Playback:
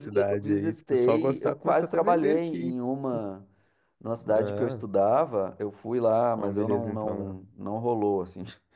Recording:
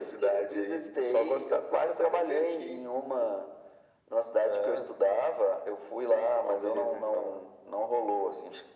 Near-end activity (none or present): none